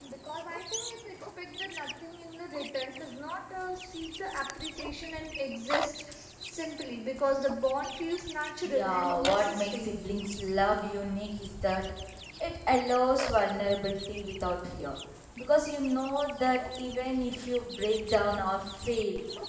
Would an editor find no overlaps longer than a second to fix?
No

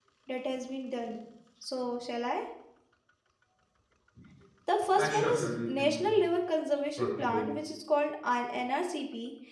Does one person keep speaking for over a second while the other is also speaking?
Yes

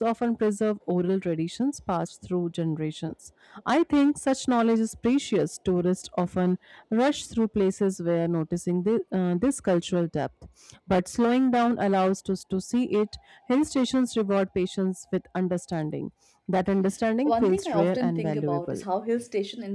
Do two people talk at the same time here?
Yes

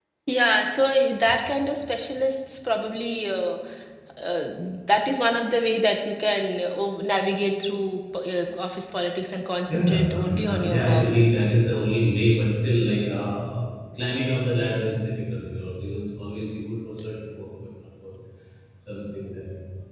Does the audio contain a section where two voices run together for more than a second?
Yes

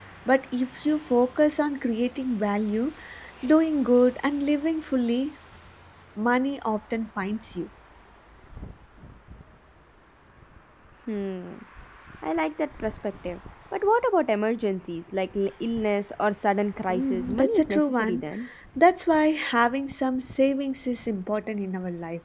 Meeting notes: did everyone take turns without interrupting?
No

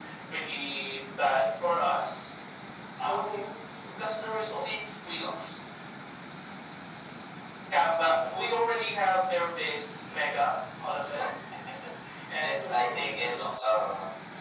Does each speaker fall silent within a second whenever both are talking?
No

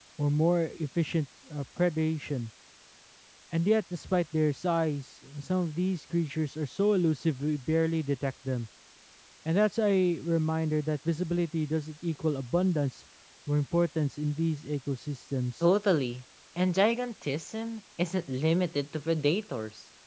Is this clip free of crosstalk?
Yes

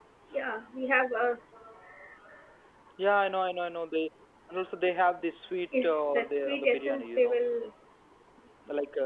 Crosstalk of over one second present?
Yes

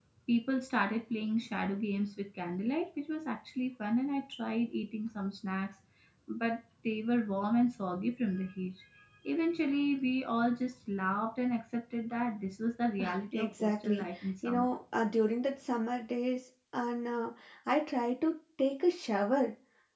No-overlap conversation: No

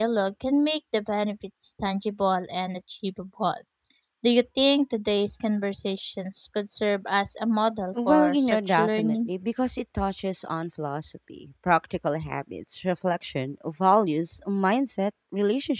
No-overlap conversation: No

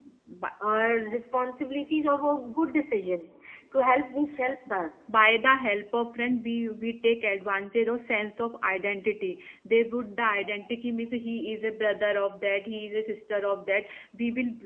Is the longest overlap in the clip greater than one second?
No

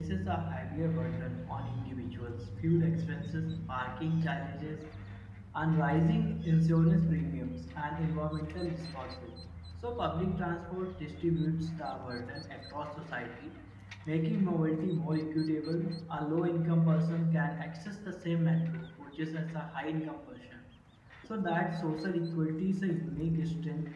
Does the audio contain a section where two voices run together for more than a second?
No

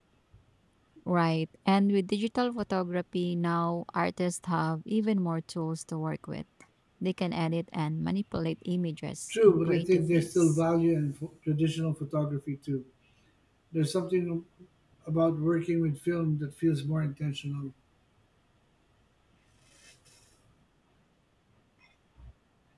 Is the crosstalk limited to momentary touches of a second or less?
No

